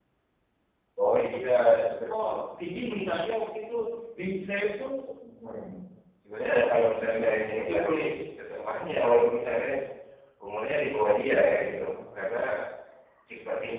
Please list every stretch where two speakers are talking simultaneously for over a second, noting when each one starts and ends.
6.4-7.9

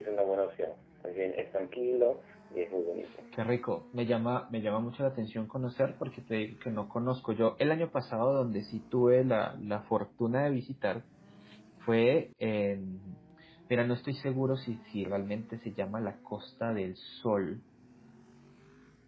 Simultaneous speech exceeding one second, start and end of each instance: none

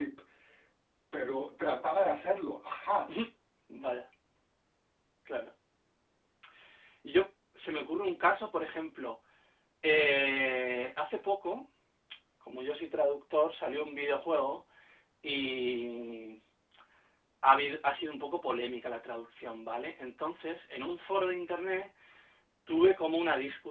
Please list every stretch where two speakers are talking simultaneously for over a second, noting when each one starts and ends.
none

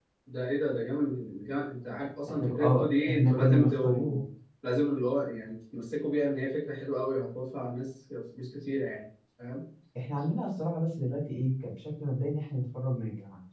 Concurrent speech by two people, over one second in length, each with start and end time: 2.4-4.2

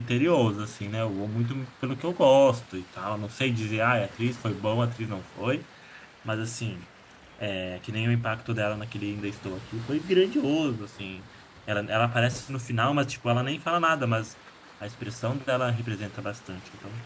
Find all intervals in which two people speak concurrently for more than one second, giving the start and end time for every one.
none

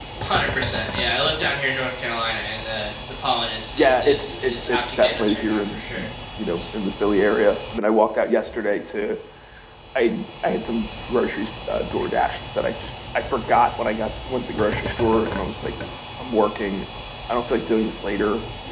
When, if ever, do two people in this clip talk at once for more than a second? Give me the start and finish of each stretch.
3.8-6.0

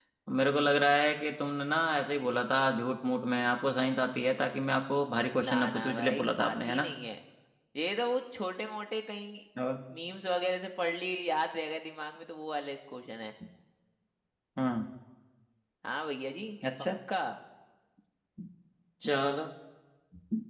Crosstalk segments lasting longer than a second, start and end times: 5.4-6.9

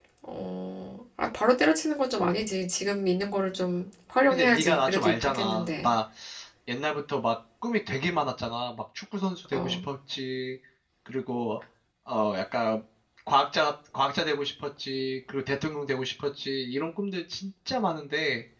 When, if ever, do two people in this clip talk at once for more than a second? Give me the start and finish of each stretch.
4.3-5.9

